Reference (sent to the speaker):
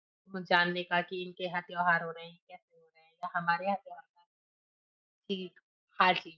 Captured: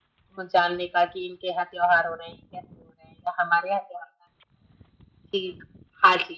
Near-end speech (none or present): none